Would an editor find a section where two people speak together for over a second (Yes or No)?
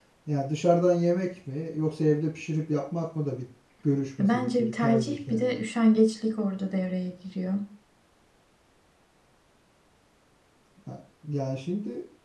Yes